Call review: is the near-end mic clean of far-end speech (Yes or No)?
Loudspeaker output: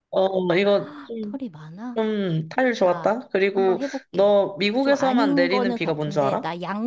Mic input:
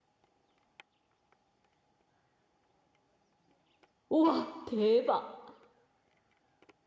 Yes